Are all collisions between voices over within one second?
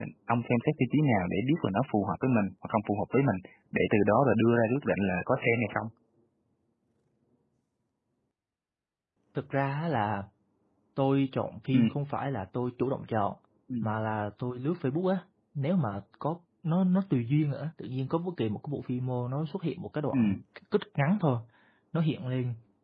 Yes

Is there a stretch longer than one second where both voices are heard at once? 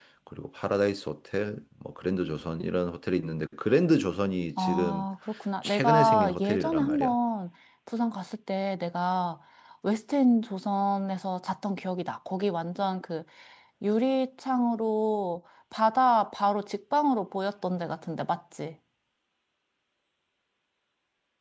Yes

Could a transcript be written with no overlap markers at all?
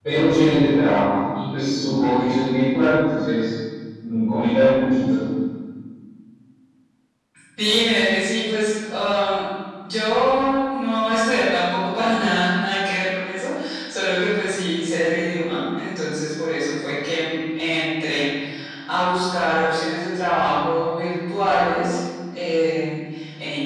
Yes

